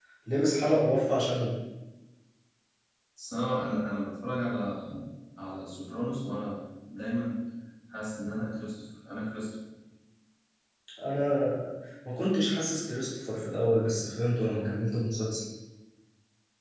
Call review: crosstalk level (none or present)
none